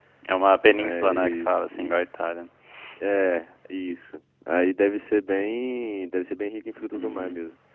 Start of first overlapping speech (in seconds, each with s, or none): 0.6 s